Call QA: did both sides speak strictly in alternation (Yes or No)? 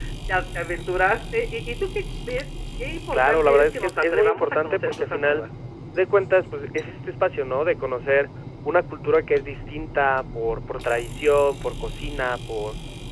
No